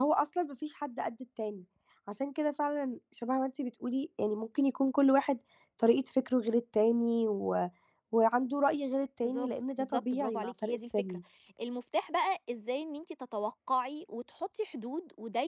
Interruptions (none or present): present